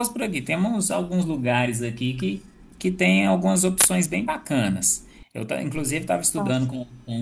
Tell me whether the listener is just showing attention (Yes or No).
Yes